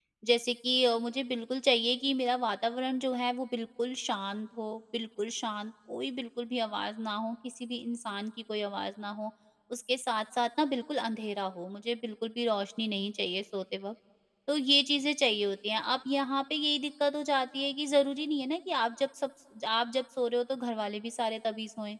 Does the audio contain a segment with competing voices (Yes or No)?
No